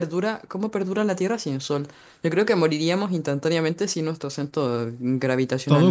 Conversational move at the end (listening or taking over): taking over